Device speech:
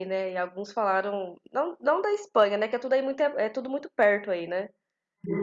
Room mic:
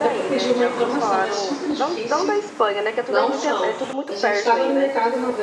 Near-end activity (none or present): present